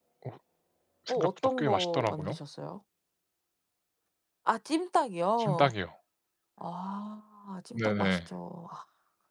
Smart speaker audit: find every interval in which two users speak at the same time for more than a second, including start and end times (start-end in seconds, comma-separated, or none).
1.1-2.4